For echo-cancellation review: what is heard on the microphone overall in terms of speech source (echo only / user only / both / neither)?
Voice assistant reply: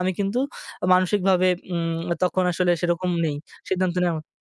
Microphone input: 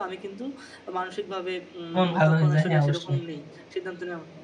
both